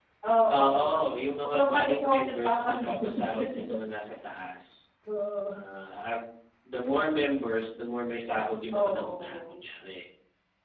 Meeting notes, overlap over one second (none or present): present